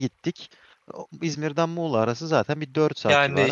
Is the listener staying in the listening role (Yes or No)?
No